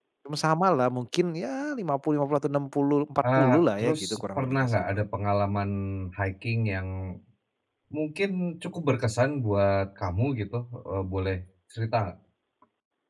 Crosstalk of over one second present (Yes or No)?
Yes